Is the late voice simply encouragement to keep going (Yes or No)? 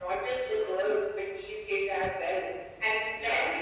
Yes